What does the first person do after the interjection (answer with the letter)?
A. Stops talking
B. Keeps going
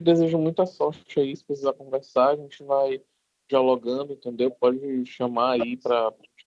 B